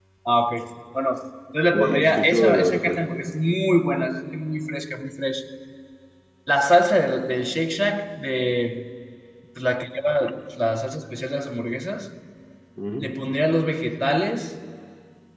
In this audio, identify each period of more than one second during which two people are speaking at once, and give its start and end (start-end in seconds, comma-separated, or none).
1.7-3.0